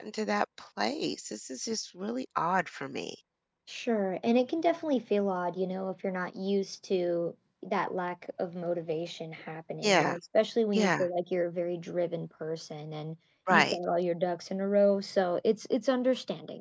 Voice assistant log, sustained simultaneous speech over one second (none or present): none